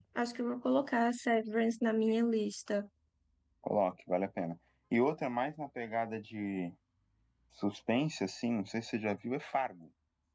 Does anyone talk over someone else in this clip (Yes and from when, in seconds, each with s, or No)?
No